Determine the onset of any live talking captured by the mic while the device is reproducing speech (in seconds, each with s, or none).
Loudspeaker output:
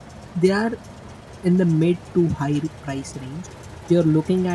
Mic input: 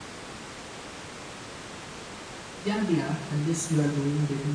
2.6 s